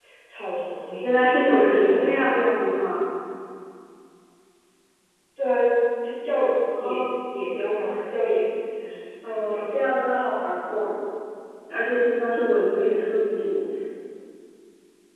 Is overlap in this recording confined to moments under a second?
No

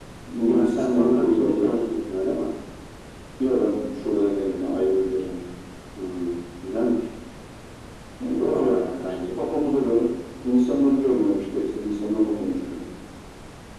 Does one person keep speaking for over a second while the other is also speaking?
Yes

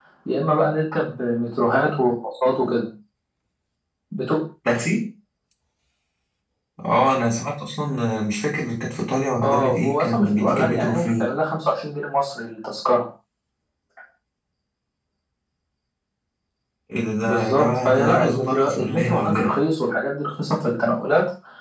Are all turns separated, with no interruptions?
No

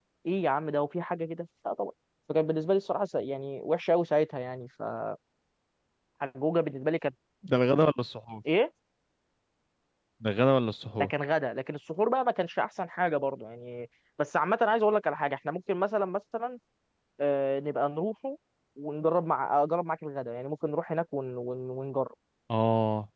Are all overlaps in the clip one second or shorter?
Yes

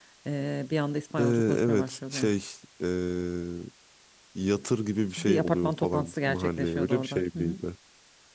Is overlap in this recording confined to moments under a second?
No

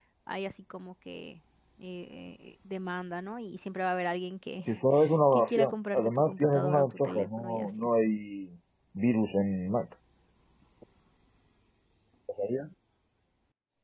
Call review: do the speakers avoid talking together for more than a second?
No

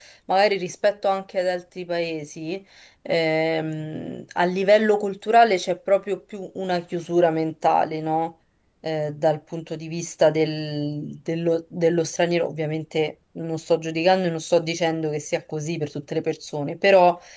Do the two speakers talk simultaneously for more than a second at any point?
No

